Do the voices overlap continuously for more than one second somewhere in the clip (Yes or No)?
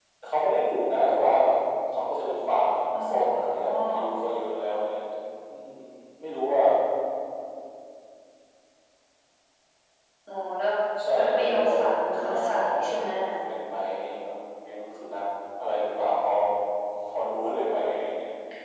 Yes